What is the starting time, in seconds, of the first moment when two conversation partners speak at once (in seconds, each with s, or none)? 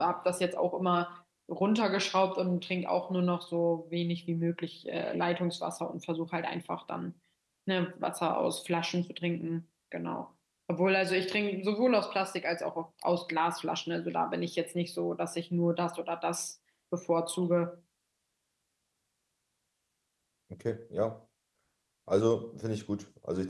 none